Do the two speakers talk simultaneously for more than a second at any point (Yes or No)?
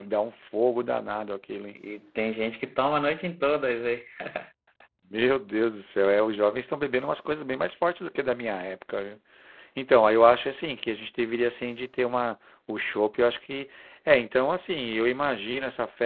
No